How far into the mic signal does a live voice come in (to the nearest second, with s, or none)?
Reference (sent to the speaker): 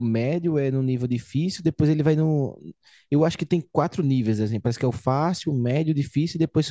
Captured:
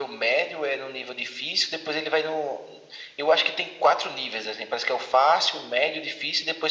none